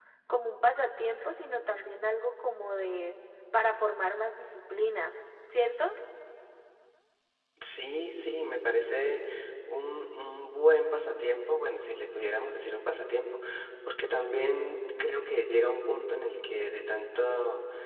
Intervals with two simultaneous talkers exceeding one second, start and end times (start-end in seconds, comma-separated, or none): none